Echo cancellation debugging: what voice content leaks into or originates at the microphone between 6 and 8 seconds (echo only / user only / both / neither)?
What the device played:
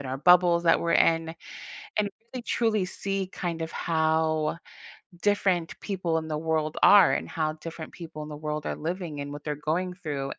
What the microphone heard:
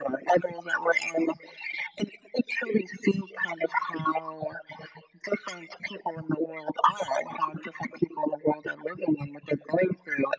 echo only